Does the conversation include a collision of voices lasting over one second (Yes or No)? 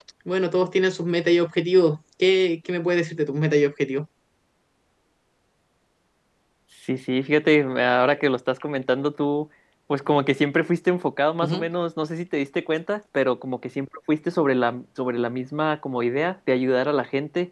No